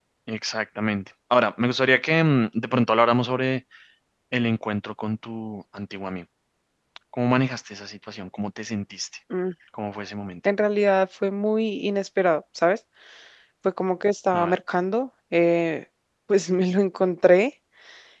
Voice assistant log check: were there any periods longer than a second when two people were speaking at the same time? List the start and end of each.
none

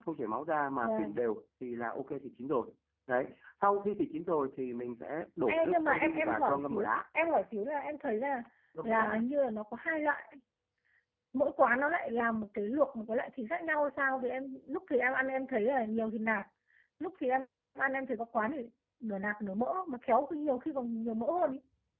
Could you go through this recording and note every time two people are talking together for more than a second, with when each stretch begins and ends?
5.5-6.9

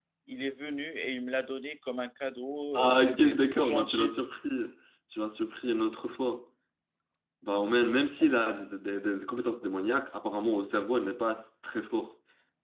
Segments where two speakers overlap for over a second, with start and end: 2.7-4.1

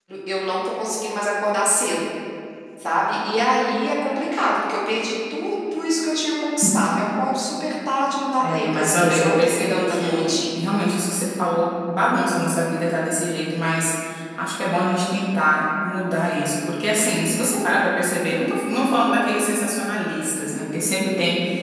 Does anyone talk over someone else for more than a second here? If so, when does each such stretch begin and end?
8.5-10.6

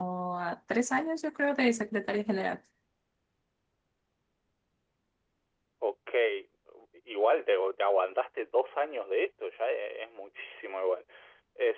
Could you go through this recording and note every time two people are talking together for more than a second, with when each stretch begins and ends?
none

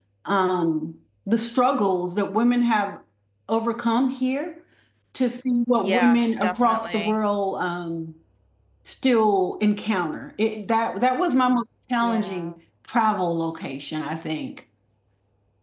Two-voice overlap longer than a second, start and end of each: 5.8-7.2

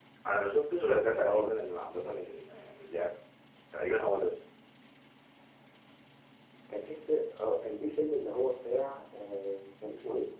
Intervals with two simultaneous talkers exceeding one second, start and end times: 1.2-2.4

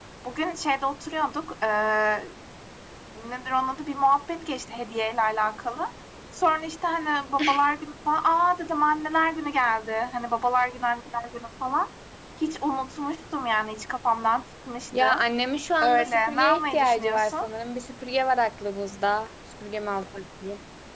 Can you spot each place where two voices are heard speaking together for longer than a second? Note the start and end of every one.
15.8-17.5

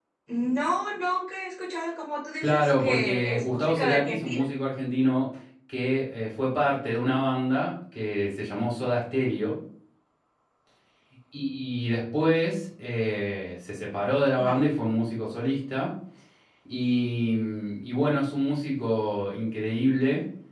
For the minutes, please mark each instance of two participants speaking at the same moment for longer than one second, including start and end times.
2.4-4.4

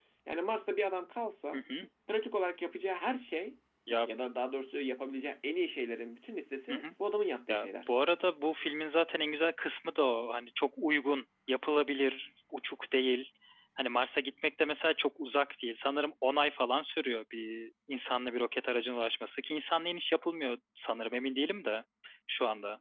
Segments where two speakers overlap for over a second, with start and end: none

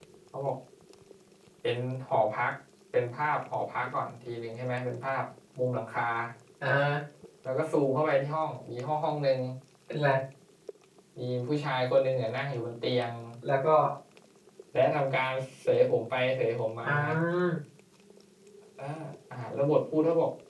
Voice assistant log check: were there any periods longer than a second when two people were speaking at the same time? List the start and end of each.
none

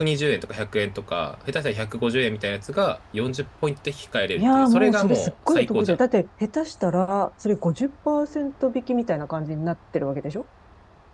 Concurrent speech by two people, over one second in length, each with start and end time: 4.4-6.0

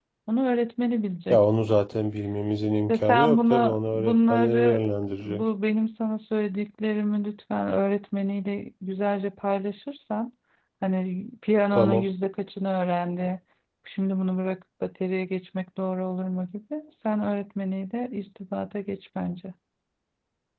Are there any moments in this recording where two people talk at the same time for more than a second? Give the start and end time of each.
2.9-4.9

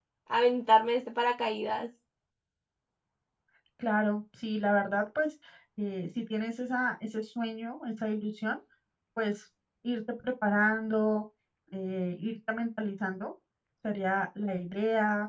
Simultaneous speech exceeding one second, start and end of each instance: none

